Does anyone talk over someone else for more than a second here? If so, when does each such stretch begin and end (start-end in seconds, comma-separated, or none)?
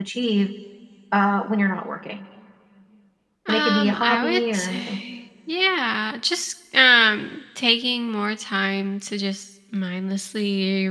3.5-5.0